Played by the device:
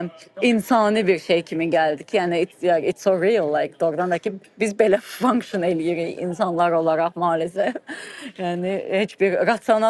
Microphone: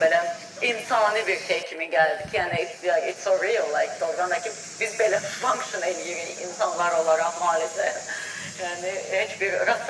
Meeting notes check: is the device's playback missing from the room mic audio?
No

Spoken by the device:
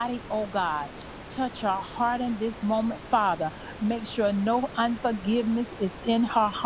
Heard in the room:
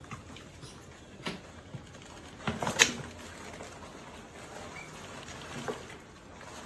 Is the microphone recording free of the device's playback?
Yes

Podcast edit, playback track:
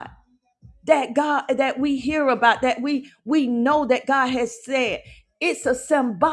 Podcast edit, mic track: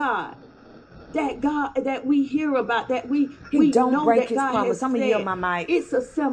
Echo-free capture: No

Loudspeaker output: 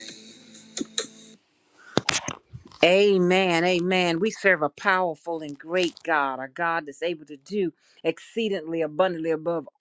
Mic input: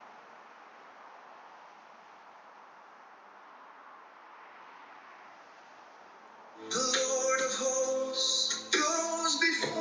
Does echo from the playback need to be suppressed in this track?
No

